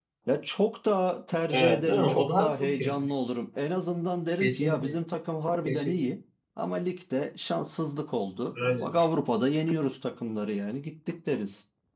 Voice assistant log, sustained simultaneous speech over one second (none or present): present